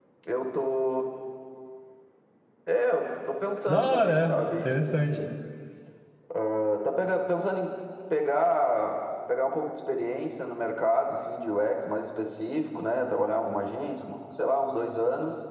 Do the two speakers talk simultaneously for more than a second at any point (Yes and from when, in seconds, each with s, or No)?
Yes, from 3.7 s